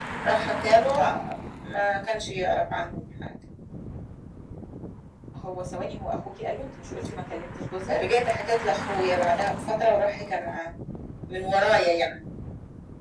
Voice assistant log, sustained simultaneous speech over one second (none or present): none